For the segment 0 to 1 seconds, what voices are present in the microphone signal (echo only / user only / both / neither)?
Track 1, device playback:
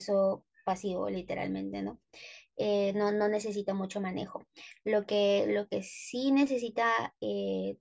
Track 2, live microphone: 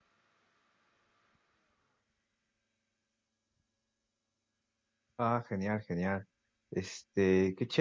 neither